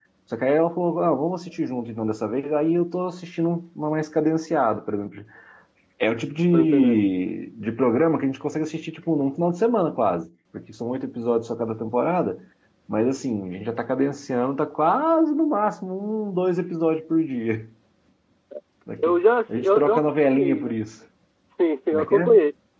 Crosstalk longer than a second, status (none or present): present